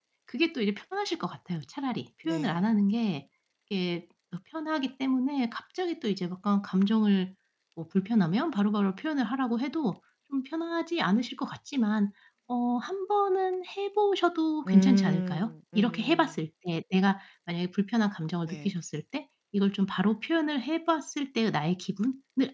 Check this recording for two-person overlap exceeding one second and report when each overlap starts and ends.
14.7-16.3

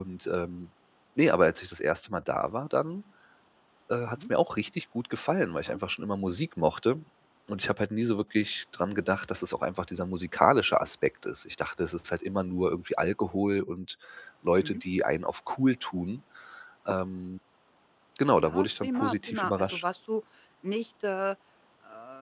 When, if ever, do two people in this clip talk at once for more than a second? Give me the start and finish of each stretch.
18.4-19.8

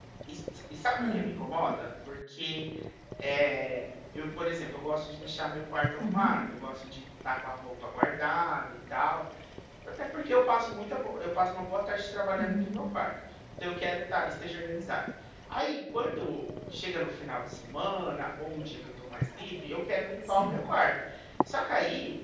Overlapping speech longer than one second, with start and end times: none

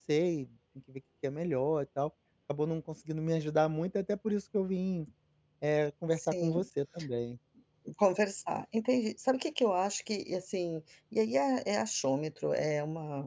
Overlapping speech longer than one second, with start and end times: none

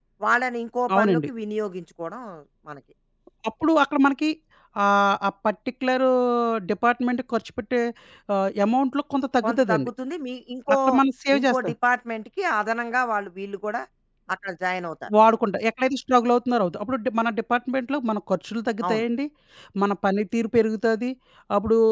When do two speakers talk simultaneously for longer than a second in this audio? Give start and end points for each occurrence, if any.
none

